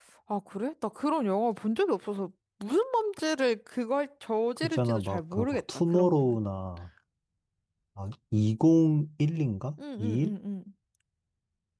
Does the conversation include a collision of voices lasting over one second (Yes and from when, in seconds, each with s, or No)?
Yes, from 4.6 s